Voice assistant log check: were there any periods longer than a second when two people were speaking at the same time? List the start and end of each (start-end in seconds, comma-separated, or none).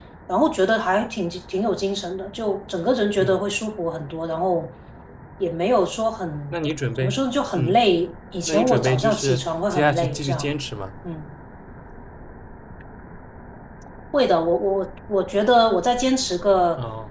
8.5-10.6